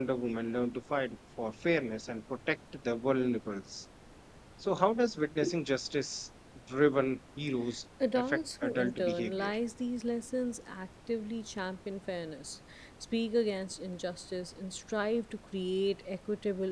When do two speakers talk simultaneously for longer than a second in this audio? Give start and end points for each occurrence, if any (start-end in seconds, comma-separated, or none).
8.2-9.5